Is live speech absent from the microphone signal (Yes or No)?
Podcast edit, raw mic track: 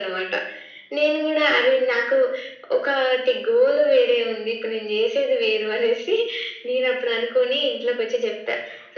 Yes